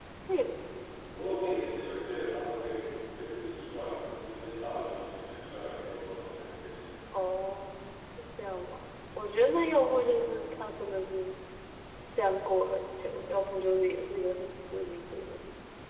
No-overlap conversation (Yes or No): Yes